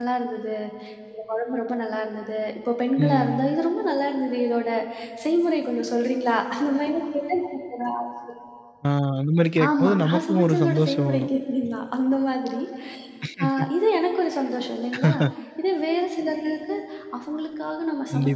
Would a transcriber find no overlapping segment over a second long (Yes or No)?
No